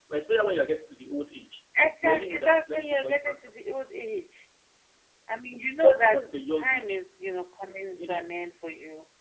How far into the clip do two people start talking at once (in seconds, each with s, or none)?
2.0 s